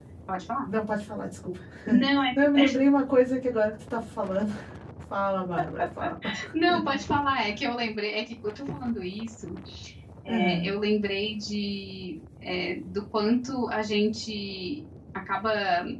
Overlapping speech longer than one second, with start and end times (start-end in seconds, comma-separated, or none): none